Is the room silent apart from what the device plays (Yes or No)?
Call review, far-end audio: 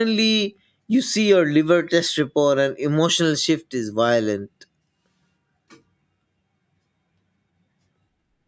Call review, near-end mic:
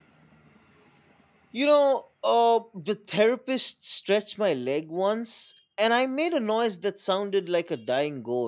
No